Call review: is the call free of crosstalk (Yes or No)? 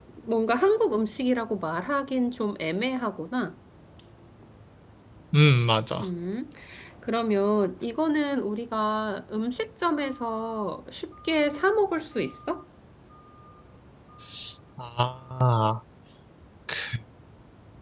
Yes